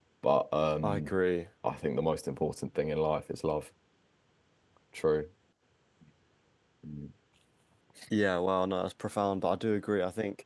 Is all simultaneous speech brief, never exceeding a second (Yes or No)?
Yes